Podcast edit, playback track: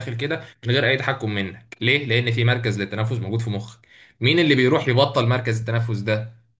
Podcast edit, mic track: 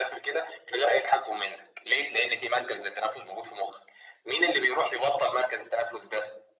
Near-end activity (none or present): none